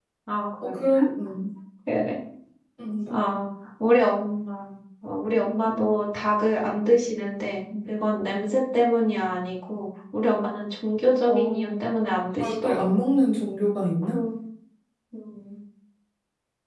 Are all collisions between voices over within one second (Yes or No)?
Yes